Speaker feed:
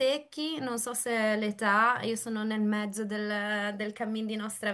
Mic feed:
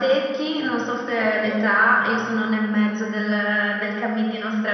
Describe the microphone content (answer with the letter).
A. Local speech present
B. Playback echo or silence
A